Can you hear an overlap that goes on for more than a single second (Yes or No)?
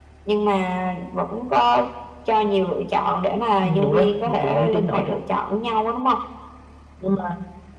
Yes